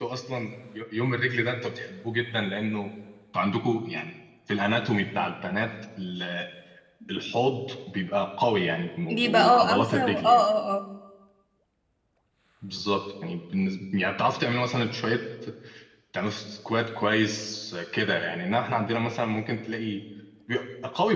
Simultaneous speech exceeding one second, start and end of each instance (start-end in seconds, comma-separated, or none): 9.1-10.4